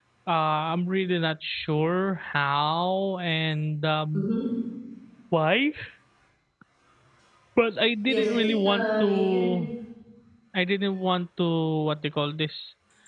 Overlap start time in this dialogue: 8.1 s

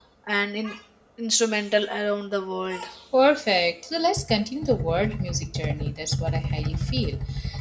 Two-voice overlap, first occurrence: none

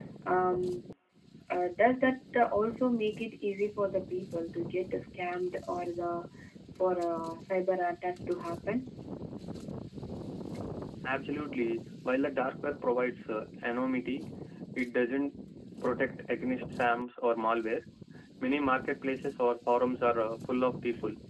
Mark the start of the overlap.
none

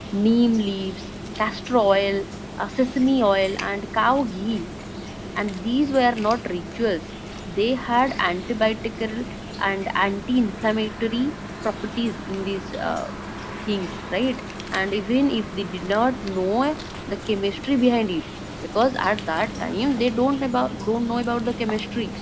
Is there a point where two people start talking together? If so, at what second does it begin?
none

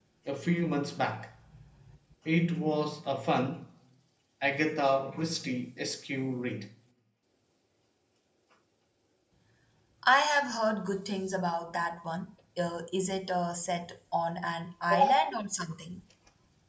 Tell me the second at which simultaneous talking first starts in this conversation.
none

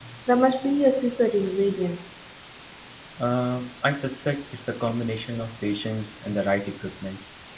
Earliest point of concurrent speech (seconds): none

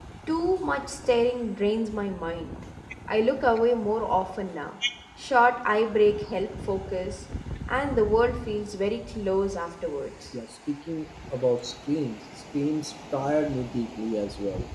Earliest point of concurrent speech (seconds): none

